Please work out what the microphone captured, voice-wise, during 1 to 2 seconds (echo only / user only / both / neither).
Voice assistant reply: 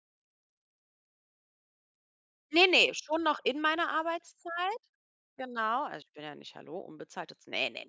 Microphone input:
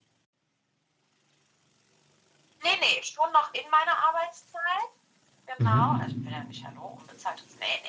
neither